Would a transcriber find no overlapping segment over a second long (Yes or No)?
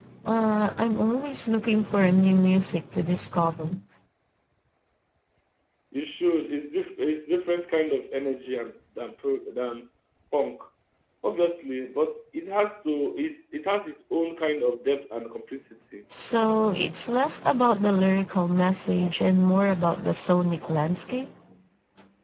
Yes